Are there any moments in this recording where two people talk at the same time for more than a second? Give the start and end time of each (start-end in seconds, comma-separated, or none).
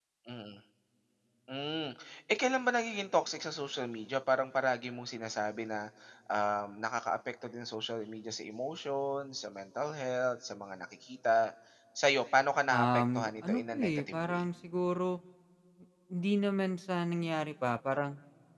12.7-14.4